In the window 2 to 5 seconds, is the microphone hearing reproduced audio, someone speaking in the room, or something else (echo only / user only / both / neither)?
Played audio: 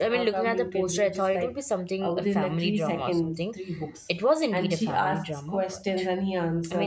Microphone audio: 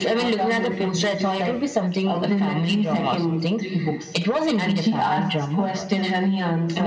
echo only